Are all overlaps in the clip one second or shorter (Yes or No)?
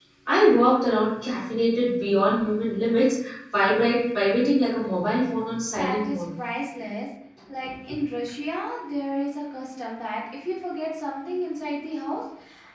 Yes